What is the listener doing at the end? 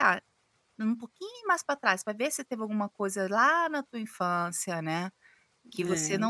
listening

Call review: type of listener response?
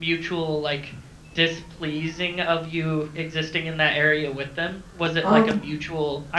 listening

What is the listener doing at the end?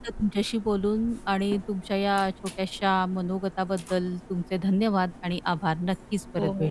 taking over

